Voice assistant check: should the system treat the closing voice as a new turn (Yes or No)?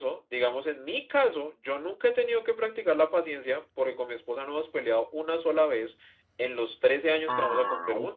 Yes